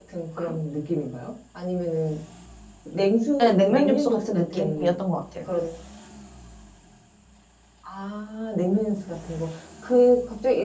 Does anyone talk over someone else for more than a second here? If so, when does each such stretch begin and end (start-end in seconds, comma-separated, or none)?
3.4-4.9